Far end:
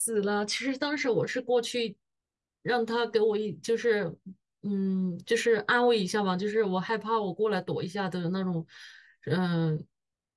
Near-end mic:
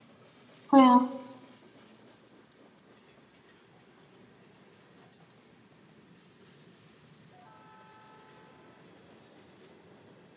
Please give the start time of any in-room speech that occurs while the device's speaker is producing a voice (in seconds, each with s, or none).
0.7 s